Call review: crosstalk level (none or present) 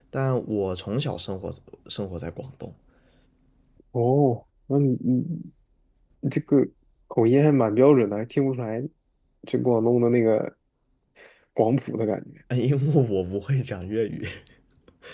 none